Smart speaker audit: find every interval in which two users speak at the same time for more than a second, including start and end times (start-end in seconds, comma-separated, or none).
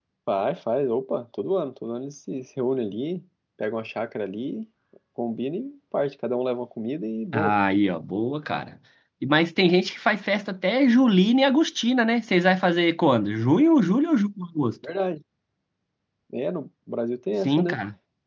none